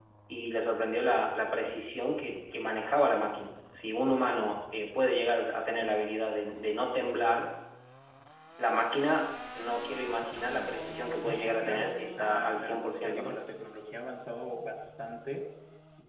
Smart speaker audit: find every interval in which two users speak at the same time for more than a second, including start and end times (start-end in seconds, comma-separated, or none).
11.2-13.4